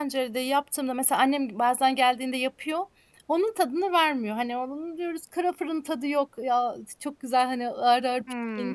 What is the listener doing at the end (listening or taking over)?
taking over